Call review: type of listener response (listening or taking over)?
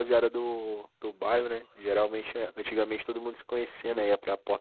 listening